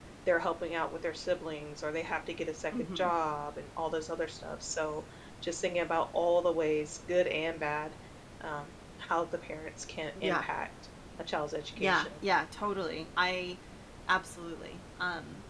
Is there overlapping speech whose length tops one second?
No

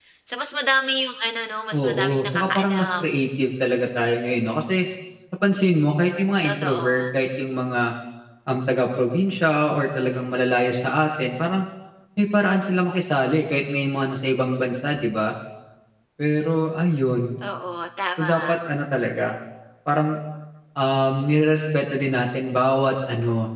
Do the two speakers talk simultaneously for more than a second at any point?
Yes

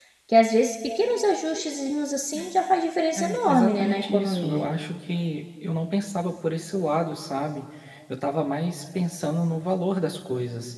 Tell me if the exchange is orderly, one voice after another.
No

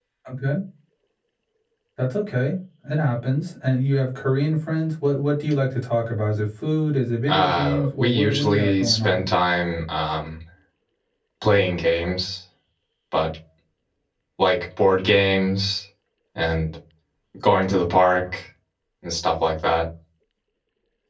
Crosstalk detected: Yes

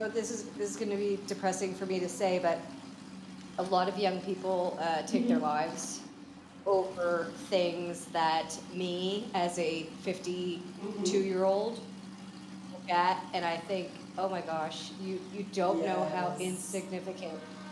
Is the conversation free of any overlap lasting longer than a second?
No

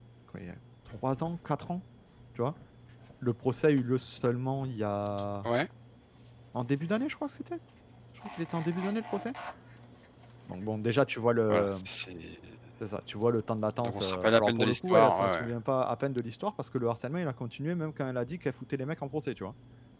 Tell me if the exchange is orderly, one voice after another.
No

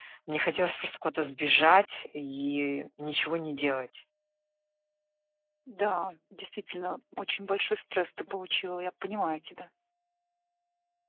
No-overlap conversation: Yes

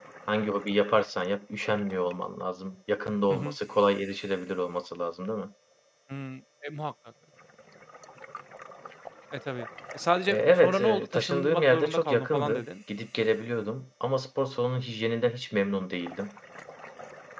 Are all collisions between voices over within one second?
No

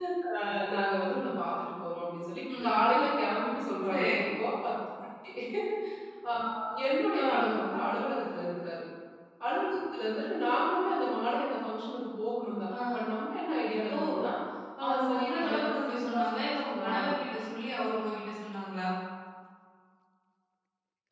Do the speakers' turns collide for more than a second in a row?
Yes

